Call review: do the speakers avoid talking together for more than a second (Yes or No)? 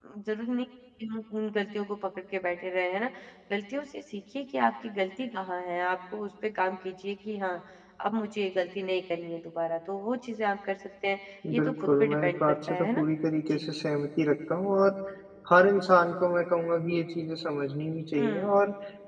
No